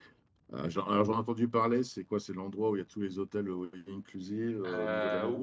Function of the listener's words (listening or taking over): taking over